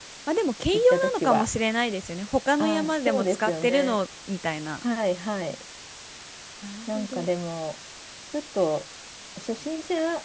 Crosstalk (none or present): present